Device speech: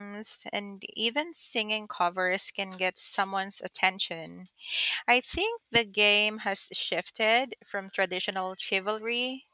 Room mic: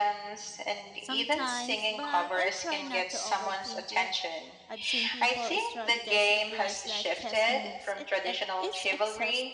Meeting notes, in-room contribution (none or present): present